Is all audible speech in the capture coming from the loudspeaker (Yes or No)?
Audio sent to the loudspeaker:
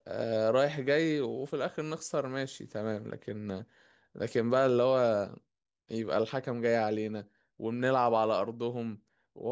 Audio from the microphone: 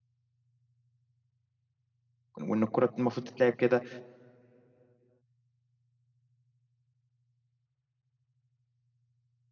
No